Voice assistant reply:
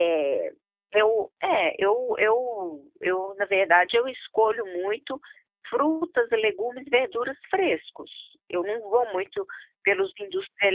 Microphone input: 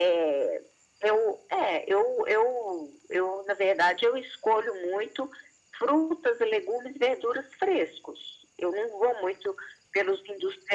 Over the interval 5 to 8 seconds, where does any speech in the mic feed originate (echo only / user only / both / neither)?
echo only